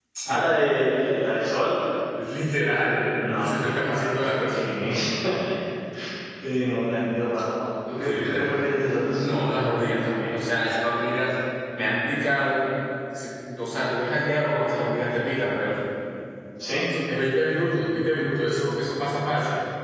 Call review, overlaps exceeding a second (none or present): present